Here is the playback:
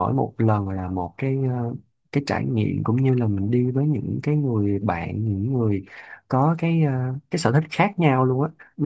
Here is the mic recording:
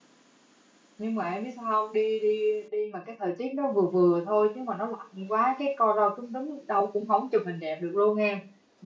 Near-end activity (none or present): present